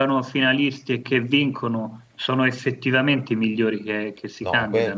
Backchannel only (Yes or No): No